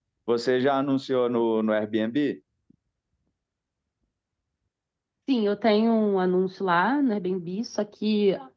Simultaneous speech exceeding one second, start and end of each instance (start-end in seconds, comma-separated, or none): none